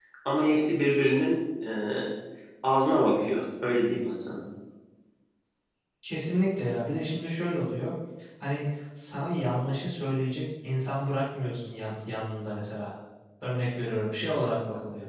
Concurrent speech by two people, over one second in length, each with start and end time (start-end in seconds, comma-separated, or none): none